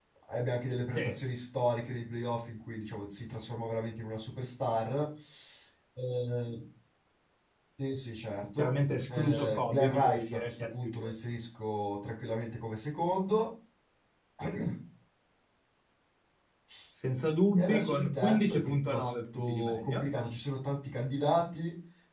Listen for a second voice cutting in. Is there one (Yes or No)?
Yes